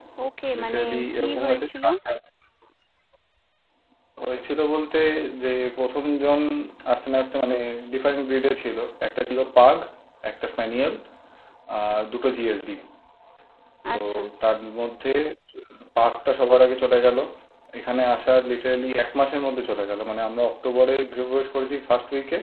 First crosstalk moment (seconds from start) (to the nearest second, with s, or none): 1 s